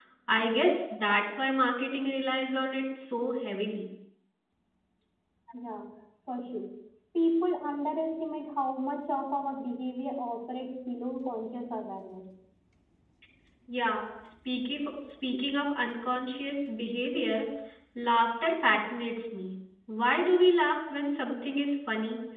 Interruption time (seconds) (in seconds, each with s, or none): none